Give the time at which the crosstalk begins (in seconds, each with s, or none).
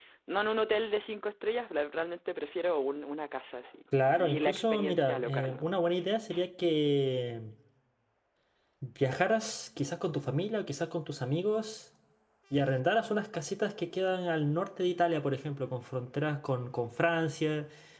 3.9 s